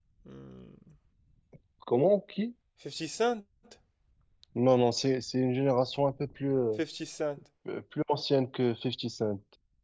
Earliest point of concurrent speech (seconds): none

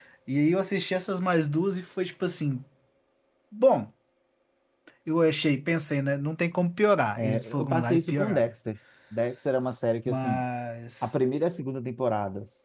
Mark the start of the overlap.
7 s

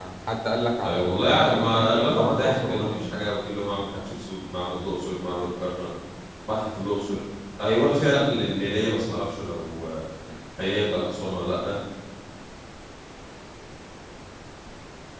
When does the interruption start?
1 s

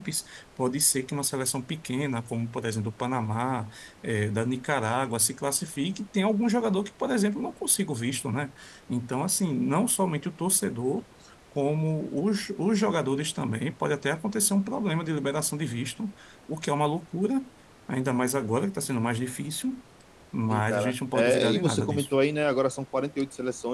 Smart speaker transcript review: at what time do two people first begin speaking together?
21 s

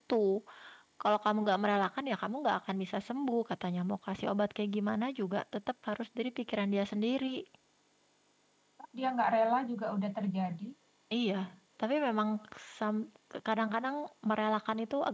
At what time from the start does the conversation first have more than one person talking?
none

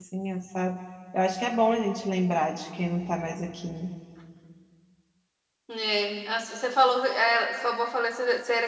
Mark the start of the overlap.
none

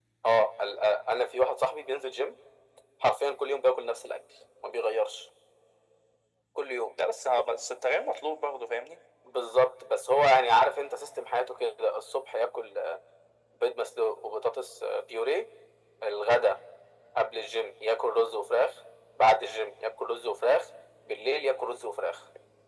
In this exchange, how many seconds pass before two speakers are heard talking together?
none

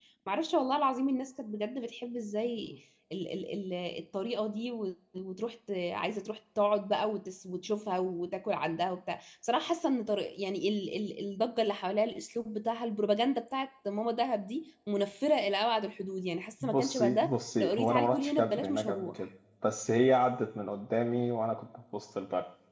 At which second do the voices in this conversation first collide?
17 s

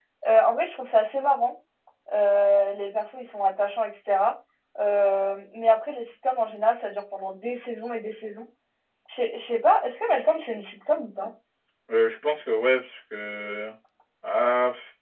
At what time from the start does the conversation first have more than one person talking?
none

